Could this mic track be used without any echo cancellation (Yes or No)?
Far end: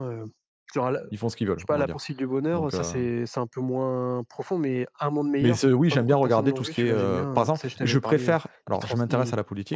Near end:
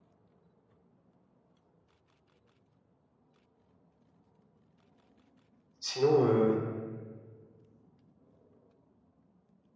Yes